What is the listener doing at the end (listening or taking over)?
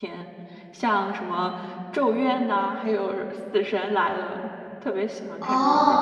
taking over